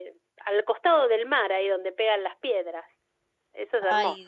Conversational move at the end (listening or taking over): taking over